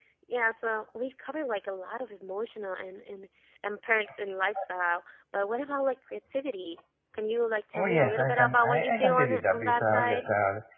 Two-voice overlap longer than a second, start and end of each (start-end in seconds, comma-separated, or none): 7.7-10.3